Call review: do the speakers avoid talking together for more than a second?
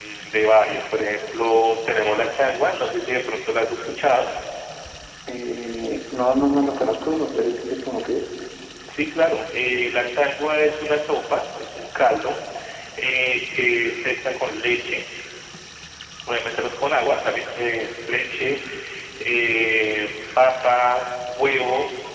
Yes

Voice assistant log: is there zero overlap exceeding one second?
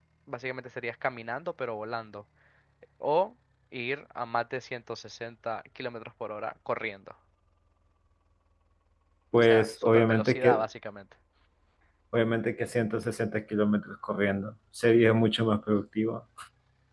No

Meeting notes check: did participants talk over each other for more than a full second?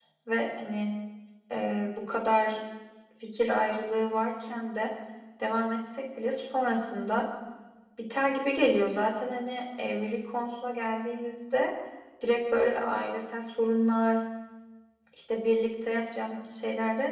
No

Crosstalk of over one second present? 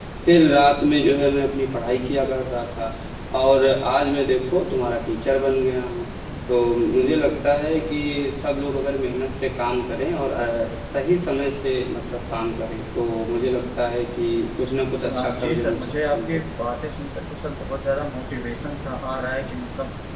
Yes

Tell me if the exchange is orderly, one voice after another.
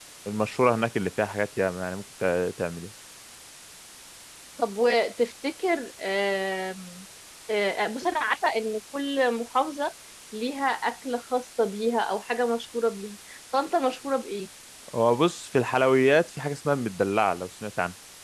Yes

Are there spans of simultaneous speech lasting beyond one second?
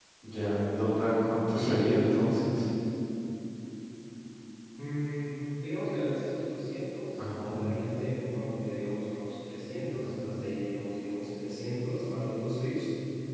No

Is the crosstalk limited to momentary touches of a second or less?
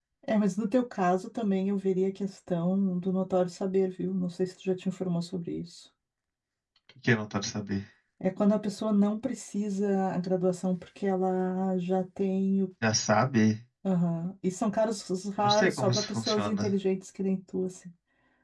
No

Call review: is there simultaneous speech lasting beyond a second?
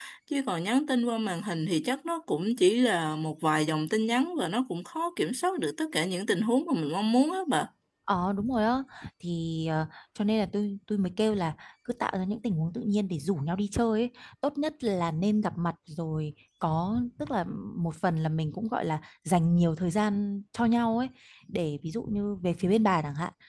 No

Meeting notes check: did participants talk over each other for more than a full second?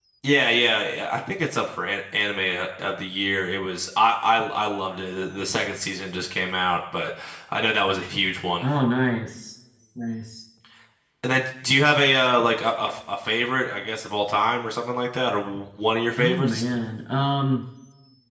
No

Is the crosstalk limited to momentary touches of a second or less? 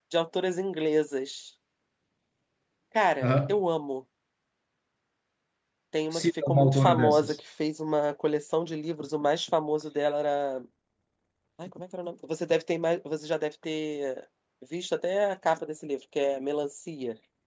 No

